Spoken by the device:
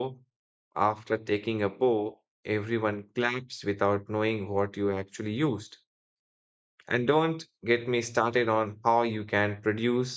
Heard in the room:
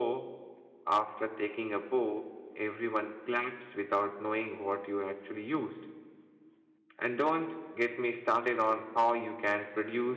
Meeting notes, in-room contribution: none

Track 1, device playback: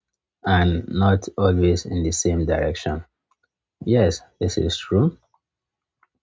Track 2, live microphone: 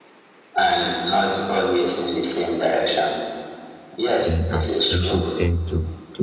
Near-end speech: present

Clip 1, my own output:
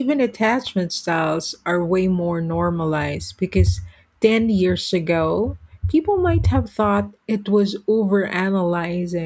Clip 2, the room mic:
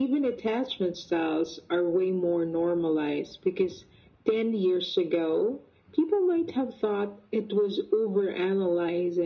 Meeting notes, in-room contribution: none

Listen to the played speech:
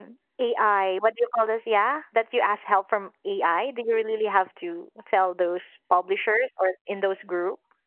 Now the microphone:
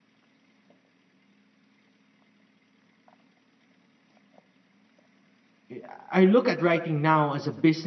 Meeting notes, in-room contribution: present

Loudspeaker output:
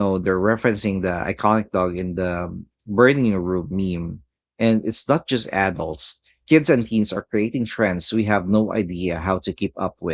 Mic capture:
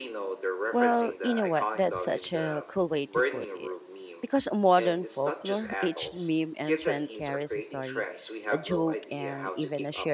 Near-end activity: present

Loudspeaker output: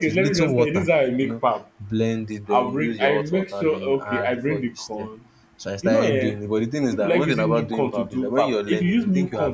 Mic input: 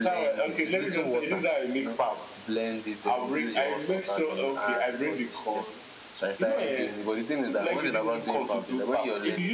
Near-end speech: none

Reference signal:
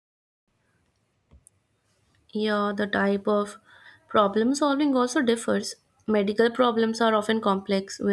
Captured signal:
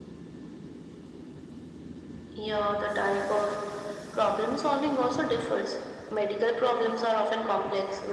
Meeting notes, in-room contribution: none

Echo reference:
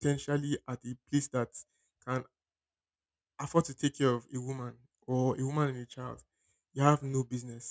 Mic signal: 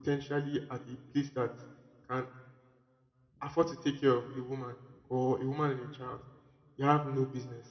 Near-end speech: none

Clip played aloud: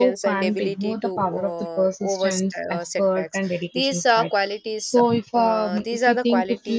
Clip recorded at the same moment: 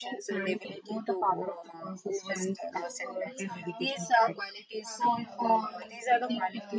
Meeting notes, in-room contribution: present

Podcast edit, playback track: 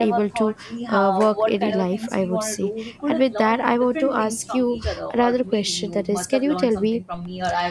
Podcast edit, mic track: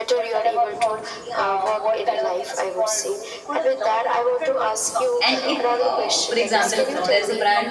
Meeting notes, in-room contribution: present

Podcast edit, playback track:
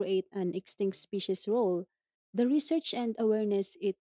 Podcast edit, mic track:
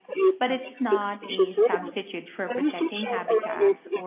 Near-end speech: present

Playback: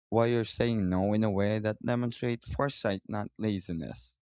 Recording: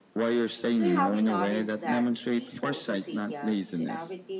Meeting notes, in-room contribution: present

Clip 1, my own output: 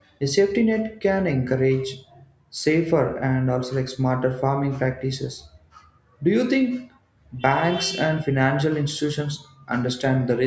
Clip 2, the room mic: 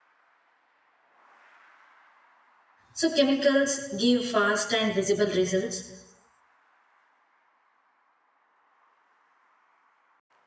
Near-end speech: present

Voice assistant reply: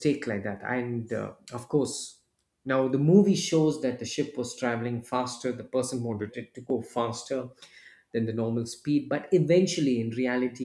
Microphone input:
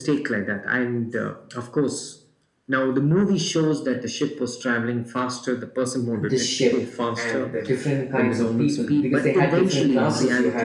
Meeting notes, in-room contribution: present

